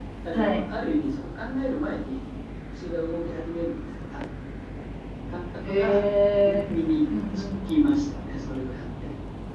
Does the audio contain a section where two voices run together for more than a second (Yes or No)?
No